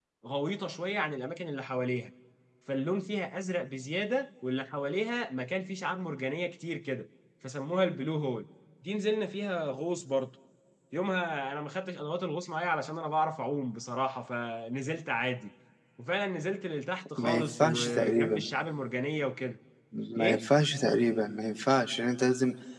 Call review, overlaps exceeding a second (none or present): present